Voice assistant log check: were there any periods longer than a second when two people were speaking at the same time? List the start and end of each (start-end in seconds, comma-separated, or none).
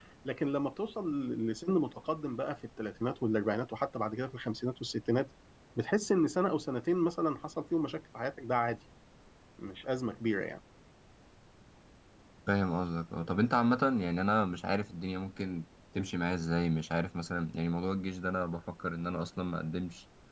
none